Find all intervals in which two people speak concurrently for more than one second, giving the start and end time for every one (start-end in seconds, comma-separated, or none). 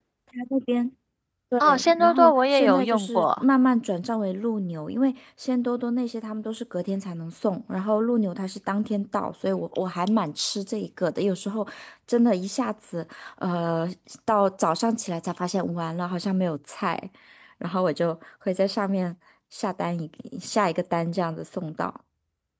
1.6-3.4